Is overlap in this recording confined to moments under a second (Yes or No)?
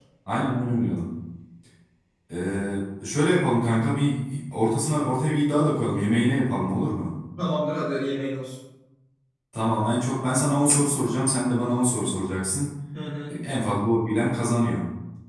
Yes